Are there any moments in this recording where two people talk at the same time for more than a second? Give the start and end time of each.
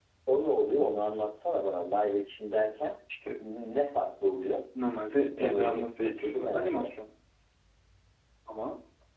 5.4-6.9

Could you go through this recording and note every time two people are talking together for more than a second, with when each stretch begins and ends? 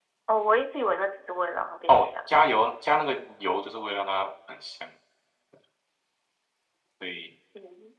none

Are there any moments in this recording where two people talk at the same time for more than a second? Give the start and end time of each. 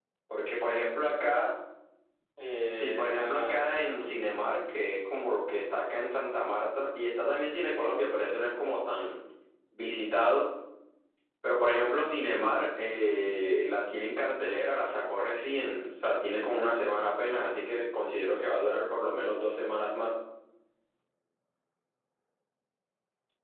2.7-4.2

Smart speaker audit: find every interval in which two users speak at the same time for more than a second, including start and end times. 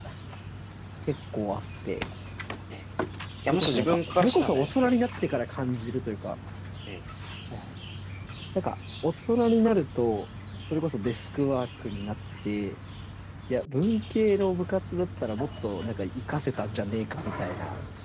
3.5-5.0

